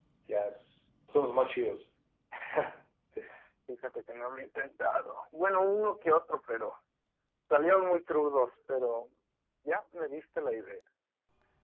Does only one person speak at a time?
Yes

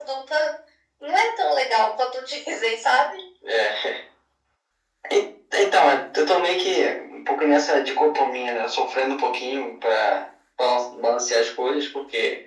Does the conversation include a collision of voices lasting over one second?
No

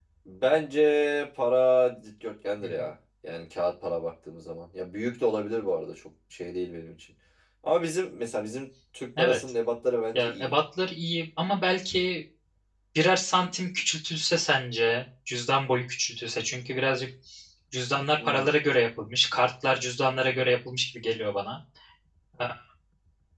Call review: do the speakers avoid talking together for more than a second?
Yes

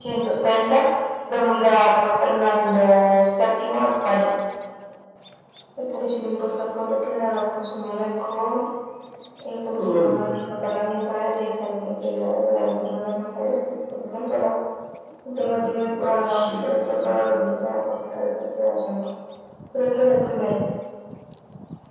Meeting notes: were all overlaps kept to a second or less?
No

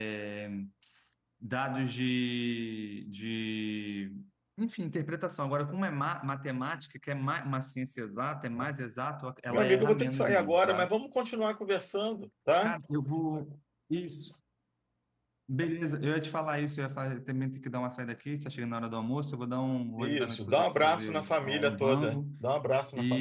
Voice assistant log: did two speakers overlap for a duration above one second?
Yes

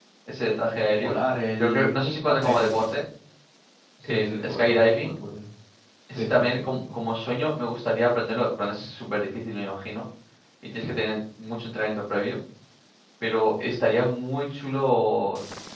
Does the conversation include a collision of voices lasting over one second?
Yes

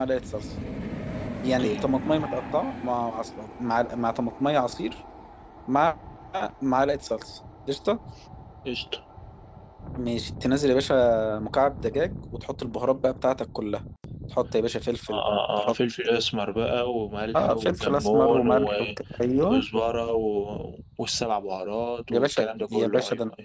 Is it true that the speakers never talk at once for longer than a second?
No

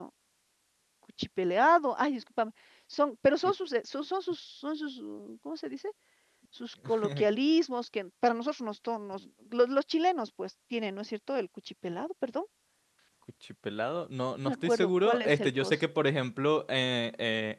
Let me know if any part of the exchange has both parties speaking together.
Yes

